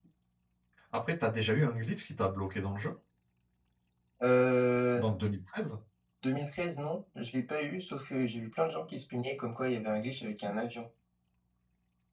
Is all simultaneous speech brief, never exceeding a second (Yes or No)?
Yes